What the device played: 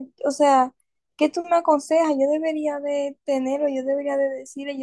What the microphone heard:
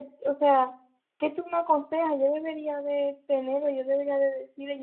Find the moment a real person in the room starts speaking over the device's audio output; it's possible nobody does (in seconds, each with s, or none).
none